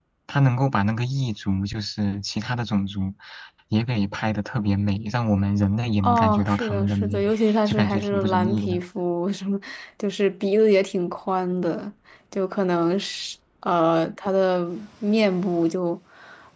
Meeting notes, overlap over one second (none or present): present